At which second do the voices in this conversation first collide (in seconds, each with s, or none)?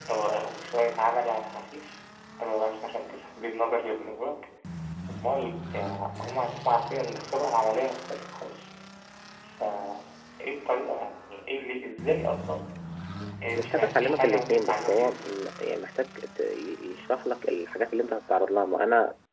13.7 s